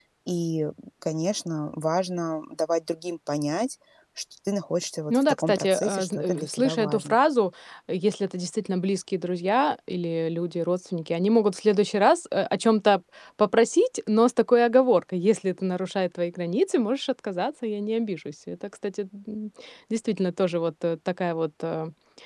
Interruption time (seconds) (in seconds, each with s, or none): 5.1 s